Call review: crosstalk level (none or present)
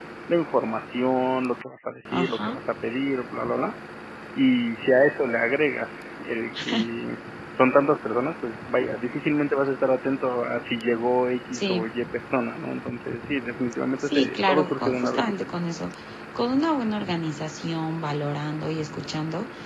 present